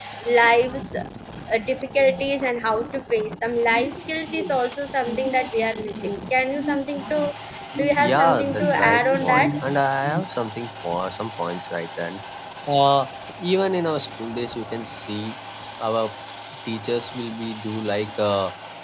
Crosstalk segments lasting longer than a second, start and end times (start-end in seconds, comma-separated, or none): 8.0-9.5